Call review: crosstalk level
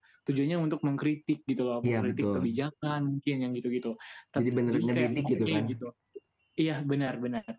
present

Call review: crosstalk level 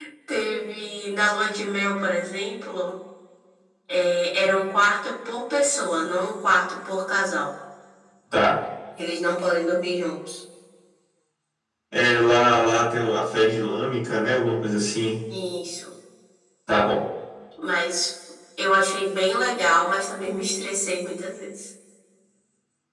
none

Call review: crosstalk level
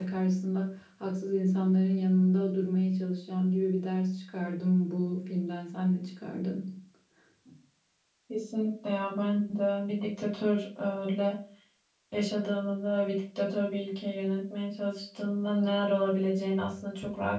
none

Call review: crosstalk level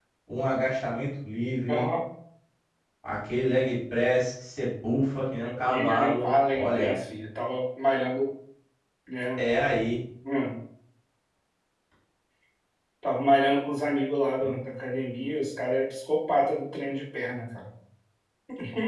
present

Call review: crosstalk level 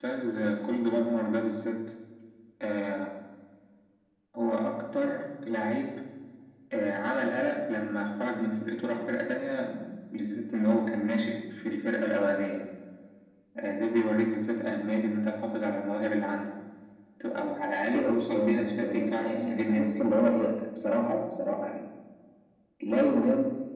present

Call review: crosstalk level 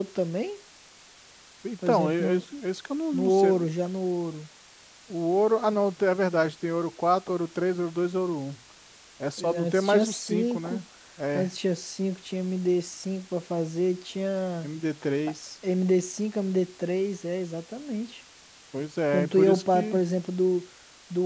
present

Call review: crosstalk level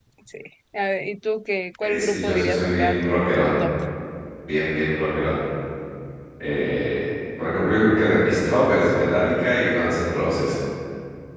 present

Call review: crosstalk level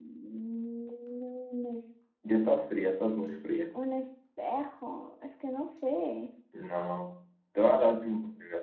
none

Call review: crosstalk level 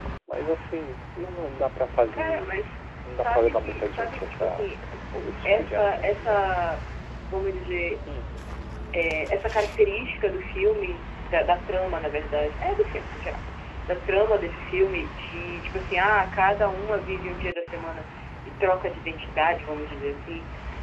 present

